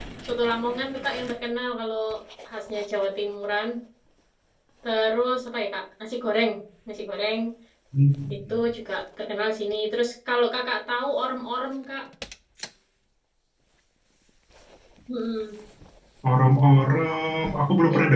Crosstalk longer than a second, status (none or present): none